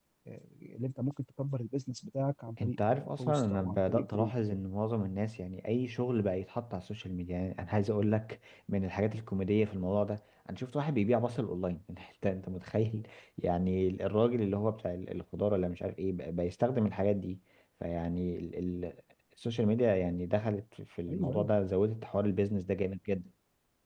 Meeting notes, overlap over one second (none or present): present